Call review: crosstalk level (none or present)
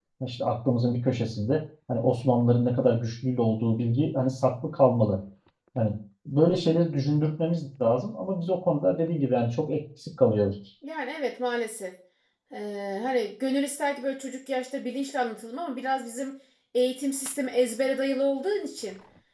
none